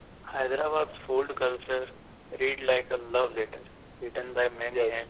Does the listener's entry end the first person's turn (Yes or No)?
No